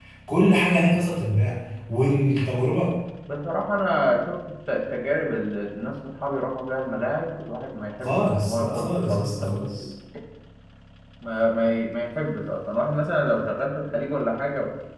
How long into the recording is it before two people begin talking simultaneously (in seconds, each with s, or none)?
8.0 s